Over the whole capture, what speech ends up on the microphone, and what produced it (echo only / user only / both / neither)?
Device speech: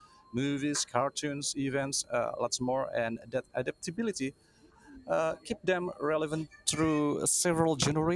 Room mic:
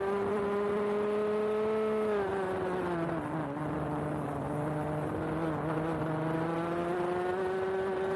neither